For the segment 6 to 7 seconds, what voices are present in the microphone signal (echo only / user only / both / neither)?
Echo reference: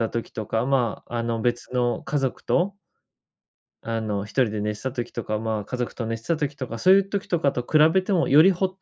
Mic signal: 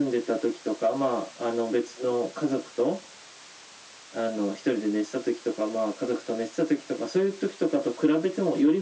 echo only